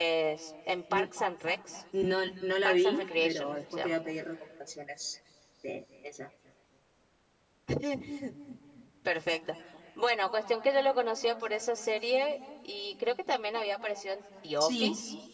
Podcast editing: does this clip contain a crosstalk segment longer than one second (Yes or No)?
Yes